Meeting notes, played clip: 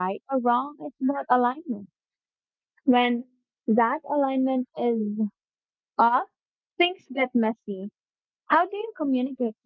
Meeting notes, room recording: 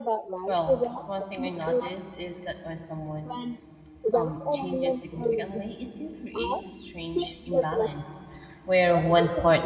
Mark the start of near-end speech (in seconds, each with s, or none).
0.5 s